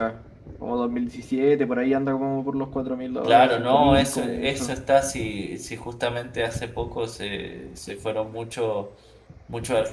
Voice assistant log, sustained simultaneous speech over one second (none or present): present